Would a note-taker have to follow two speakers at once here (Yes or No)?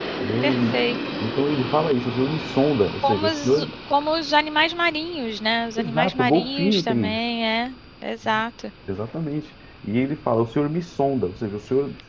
Yes